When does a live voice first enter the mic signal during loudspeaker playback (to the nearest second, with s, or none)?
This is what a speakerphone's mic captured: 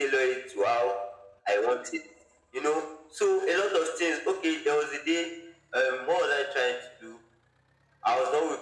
none